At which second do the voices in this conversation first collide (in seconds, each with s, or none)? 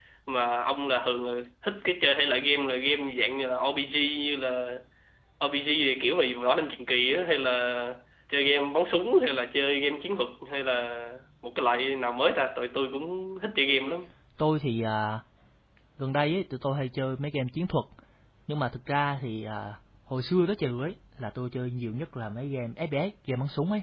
none